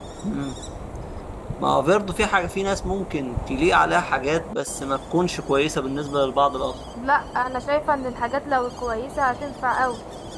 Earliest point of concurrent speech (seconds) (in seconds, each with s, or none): none